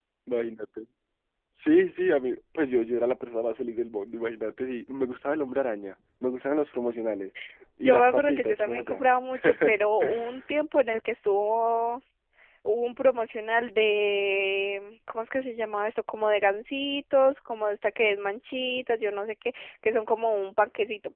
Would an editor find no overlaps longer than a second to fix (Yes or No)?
No